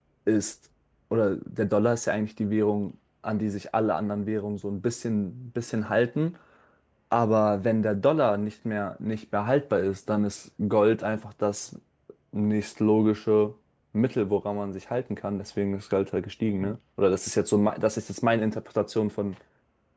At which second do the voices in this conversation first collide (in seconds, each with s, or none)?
none